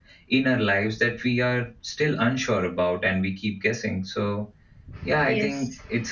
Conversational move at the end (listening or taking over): listening